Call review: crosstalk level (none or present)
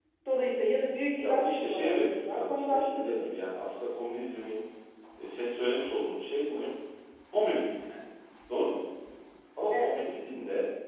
present